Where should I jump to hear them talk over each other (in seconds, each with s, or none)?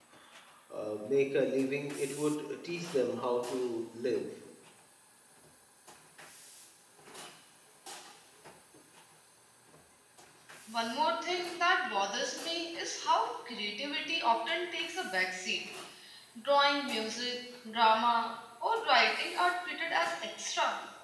none